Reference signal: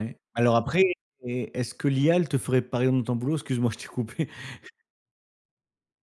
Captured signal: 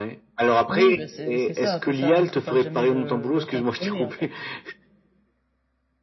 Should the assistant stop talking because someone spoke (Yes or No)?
Yes